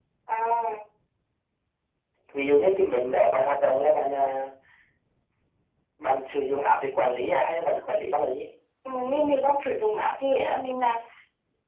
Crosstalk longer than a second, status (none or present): none